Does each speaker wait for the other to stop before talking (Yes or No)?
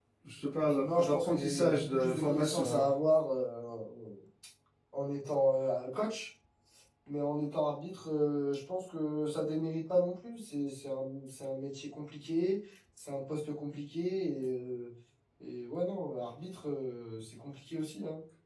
No